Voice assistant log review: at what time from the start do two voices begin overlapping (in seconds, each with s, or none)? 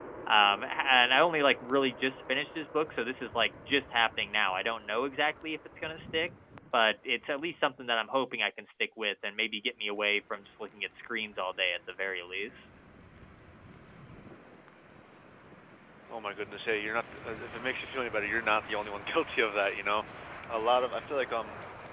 none